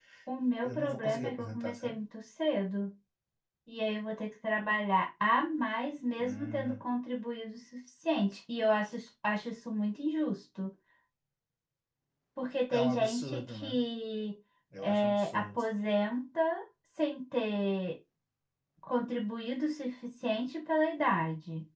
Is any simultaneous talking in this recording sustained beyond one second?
Yes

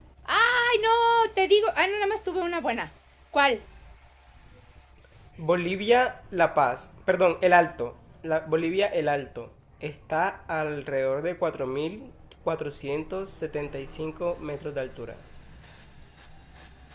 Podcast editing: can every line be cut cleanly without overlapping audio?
Yes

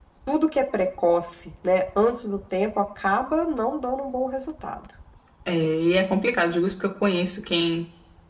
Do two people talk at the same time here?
No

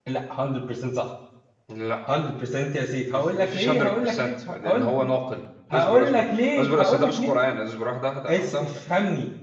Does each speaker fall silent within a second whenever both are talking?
No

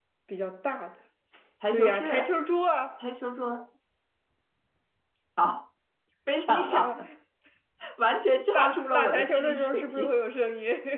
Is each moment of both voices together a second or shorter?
No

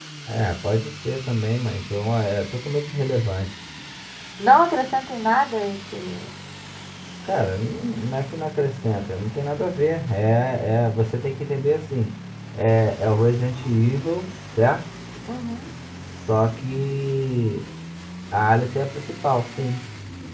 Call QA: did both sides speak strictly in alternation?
Yes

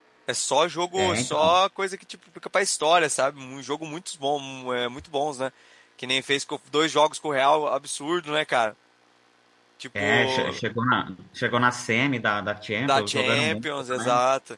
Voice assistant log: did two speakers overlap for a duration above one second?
Yes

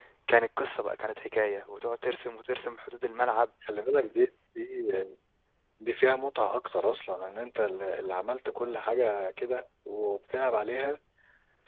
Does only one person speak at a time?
Yes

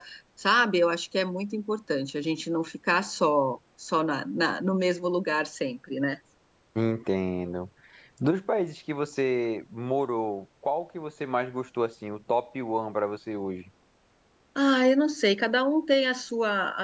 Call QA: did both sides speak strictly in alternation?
Yes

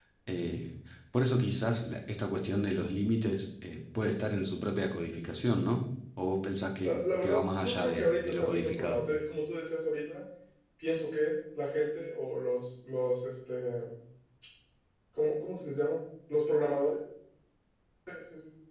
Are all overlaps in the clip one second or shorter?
No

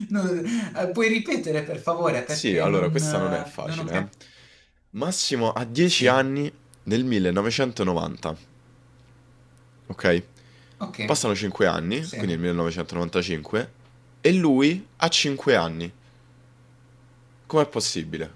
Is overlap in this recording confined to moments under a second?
No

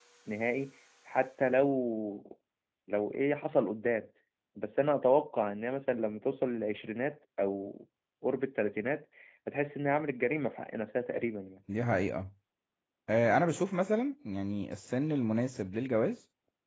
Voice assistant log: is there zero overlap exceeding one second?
Yes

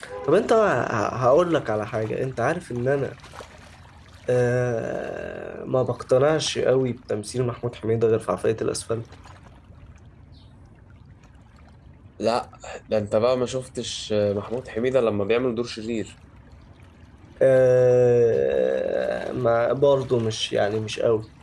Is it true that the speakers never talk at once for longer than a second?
Yes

